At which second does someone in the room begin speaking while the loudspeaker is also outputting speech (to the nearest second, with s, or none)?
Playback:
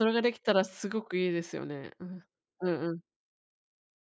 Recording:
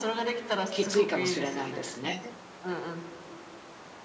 1 s